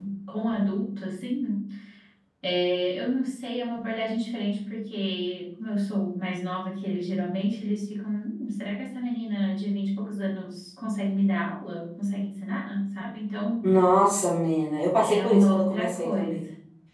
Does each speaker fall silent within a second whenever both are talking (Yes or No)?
No